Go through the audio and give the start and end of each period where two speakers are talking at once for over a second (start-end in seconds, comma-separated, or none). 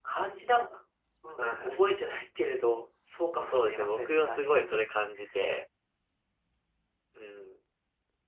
3.4-4.8